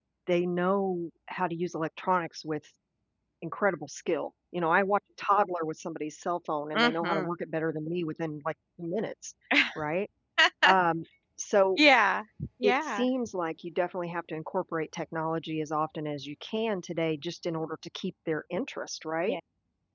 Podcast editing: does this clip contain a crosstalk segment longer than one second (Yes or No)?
No